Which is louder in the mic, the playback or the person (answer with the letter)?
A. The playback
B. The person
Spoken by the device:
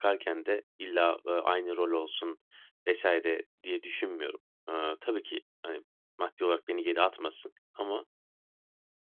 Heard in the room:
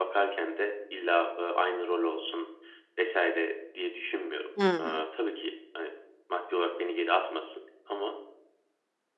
B